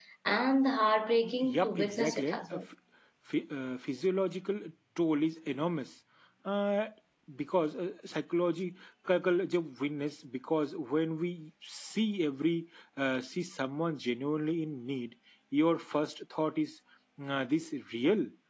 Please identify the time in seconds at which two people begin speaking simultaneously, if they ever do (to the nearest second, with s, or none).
1 s